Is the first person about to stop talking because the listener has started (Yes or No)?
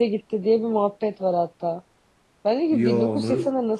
No